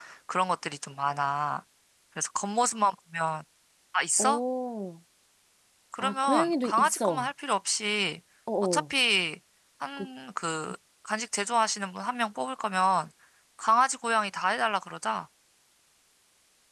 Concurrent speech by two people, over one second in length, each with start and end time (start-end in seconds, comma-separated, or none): 6.0-7.3